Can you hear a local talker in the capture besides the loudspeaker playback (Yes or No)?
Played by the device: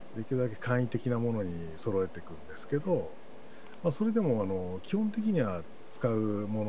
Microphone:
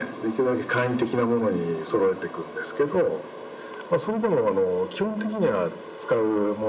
No